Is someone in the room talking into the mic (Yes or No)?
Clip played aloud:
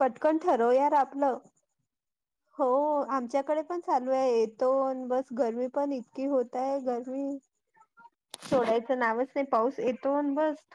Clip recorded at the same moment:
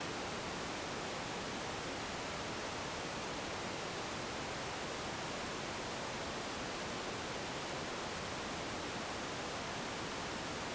No